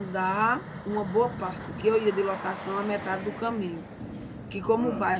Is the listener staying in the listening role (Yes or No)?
Yes